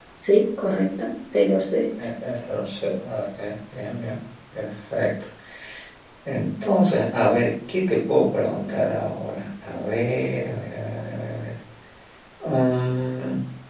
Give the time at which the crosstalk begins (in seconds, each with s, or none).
none